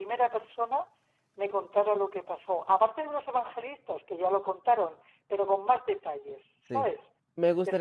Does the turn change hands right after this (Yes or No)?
Yes